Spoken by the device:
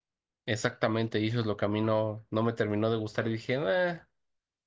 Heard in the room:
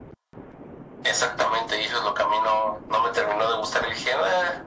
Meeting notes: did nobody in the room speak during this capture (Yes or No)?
Yes